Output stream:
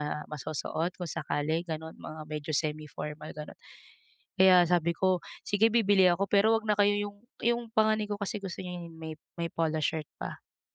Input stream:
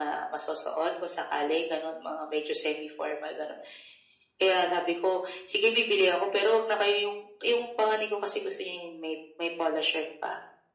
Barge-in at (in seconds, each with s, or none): none